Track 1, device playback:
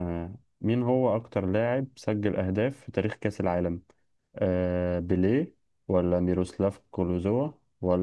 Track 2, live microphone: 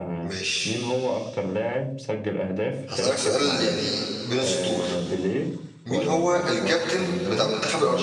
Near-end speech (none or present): present